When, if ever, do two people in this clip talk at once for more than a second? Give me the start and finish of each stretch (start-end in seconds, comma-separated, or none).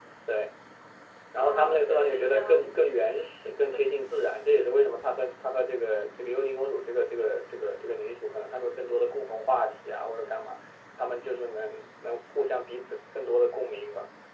1.4-2.7